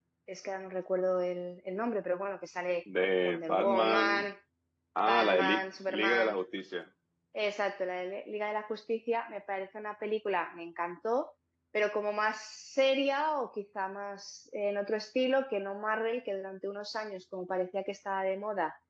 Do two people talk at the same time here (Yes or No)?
Yes